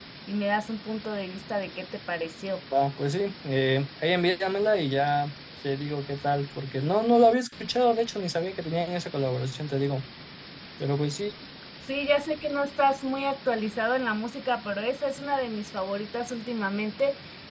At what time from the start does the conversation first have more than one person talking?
none

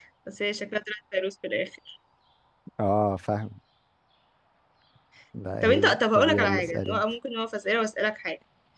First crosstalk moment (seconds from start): 6 s

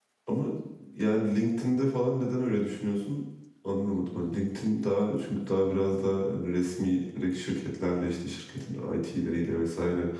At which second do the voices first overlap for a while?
none

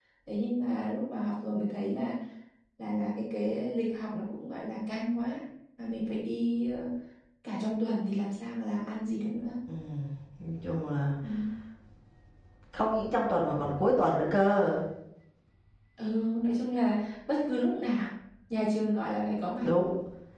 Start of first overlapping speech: none

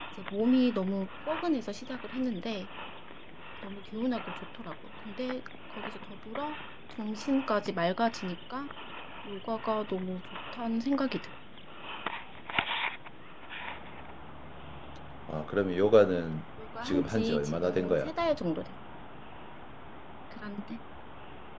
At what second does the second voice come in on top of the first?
17 s

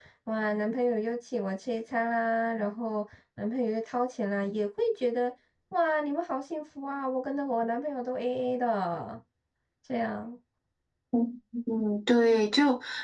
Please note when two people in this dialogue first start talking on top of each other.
none

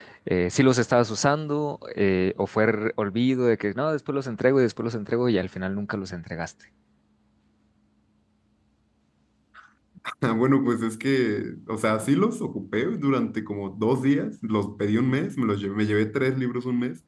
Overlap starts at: none

